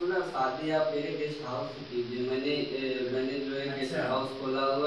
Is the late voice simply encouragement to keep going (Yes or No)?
Yes